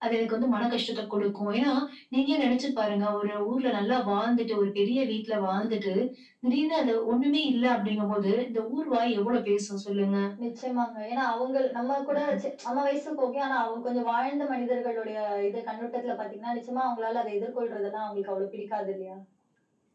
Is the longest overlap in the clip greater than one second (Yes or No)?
No